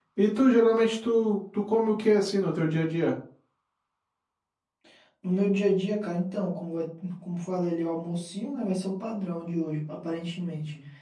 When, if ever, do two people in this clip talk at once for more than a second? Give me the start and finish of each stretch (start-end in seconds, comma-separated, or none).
none